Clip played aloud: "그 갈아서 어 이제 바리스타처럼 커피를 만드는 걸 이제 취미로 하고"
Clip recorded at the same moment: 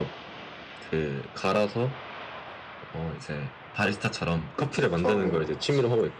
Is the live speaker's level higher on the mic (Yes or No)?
No